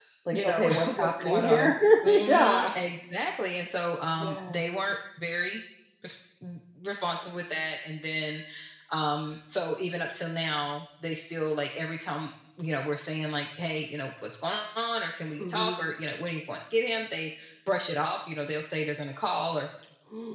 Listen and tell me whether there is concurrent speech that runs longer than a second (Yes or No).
Yes